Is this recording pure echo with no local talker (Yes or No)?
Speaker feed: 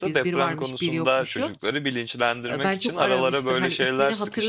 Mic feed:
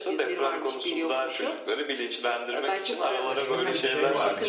No